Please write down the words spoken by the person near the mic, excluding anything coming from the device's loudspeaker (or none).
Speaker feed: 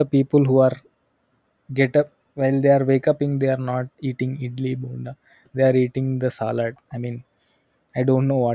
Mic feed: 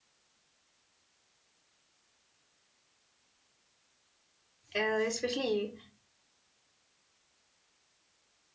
Uh, especially